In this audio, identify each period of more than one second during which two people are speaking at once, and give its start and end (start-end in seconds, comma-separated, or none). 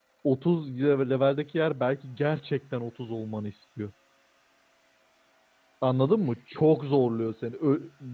none